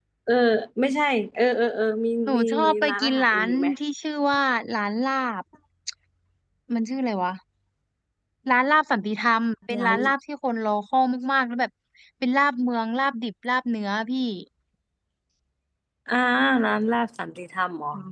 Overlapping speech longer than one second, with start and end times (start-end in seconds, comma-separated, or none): 2.3-3.7